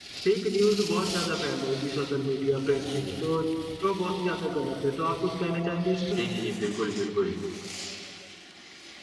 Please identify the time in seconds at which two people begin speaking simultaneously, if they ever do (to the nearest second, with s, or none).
none